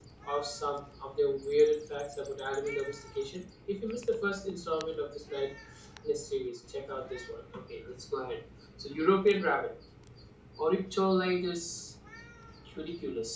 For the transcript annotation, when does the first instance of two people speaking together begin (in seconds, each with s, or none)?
none